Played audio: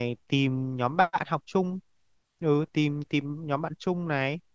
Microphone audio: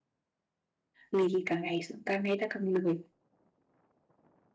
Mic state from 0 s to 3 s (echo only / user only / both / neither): user only